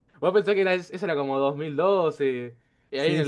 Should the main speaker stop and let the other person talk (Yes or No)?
No